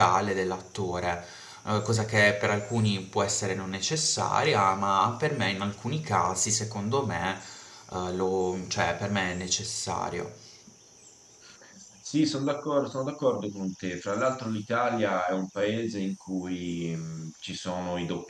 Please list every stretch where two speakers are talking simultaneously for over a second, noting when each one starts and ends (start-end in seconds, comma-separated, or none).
none